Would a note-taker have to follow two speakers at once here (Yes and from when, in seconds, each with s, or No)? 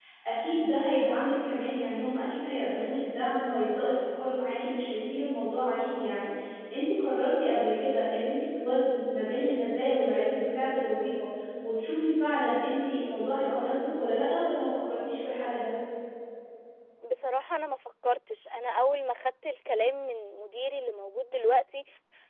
No